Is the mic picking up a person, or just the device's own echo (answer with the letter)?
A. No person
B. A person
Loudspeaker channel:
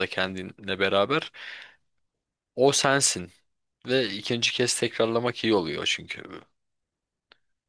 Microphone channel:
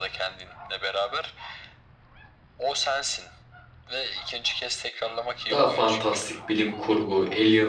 B